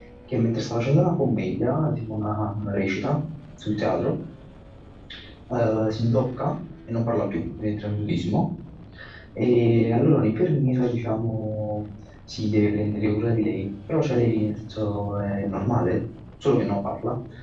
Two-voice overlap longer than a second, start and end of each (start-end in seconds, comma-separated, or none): none